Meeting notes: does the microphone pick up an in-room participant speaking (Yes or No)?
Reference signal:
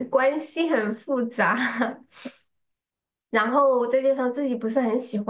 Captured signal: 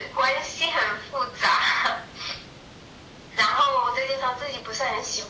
No